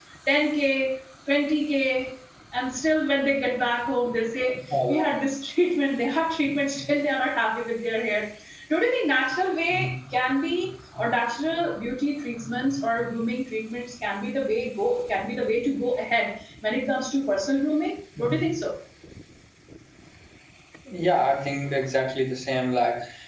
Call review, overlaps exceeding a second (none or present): none